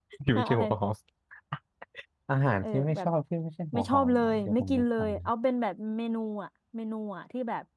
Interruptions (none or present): present